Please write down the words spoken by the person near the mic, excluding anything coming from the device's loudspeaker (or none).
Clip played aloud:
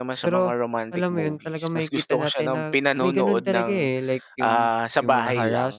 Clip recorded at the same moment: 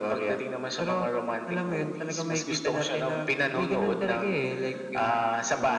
none